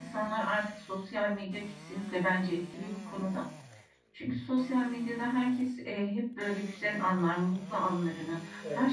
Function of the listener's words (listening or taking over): listening